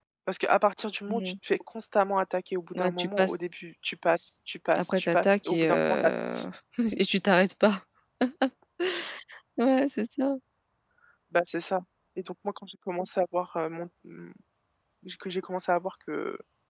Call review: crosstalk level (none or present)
present